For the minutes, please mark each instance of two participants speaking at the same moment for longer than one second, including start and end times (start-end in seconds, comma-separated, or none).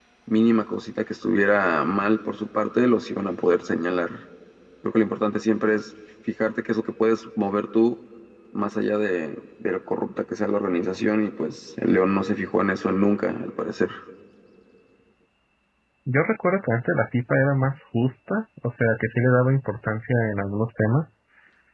none